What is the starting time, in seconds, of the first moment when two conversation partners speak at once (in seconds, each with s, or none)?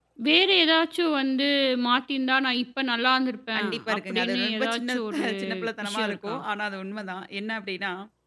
3.5 s